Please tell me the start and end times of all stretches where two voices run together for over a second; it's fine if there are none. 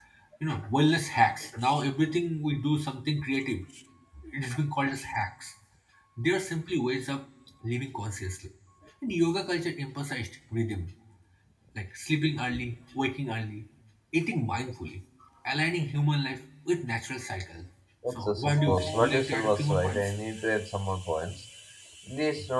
18.1-20.1

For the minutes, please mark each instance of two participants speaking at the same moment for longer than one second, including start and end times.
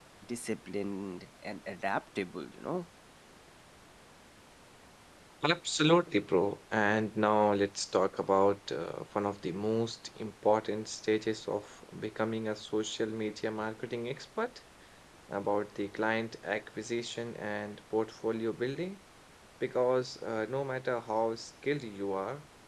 none

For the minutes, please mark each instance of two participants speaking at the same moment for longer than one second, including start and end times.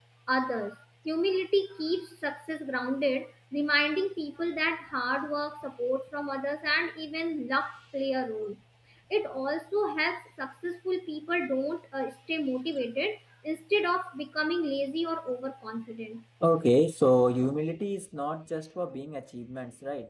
none

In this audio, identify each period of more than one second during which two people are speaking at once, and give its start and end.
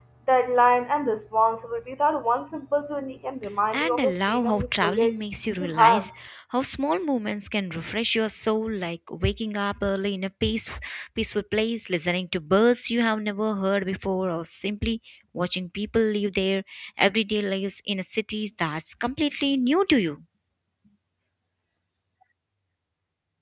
3.7-5.1

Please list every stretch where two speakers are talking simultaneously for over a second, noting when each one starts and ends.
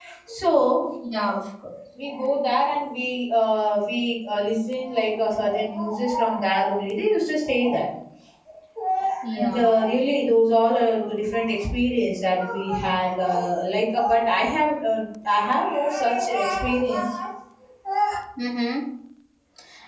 none

